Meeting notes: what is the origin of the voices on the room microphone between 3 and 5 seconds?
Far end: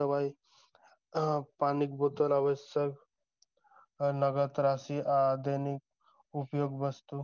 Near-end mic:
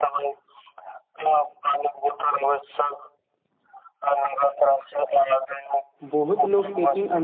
echo only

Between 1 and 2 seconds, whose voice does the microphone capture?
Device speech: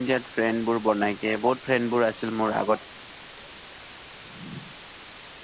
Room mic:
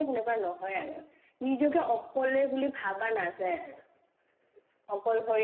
user only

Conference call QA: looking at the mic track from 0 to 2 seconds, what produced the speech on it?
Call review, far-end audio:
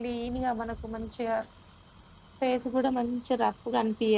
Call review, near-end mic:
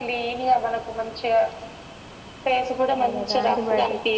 echo only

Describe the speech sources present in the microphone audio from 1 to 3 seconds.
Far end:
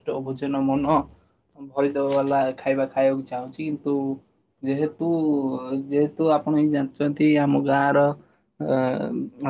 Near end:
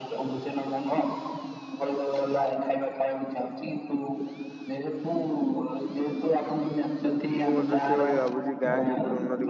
echo only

